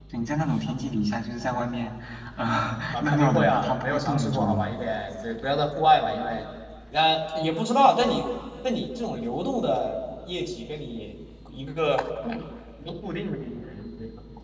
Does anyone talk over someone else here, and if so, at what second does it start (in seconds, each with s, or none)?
2.9 s